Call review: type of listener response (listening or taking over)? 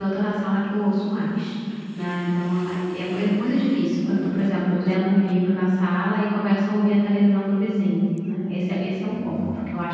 listening